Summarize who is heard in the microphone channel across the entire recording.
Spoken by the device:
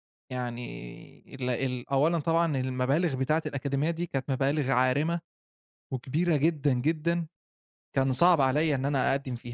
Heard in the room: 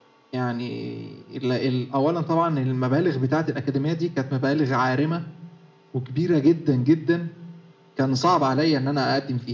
echo only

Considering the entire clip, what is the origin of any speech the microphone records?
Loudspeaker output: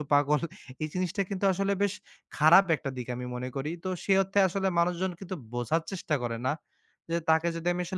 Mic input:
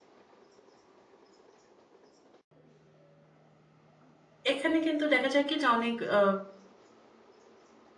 user only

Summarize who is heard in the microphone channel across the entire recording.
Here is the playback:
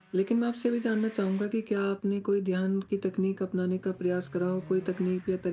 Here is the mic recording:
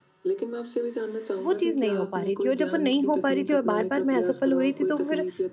both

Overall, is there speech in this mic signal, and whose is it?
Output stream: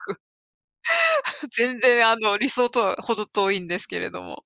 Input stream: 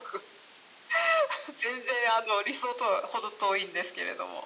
echo only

